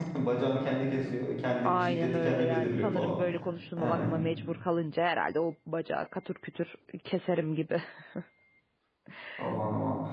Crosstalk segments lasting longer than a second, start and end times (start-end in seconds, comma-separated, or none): 1.6-3.2